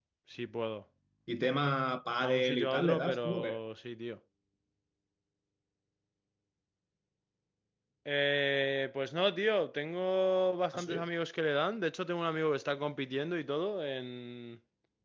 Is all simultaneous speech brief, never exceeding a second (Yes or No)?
No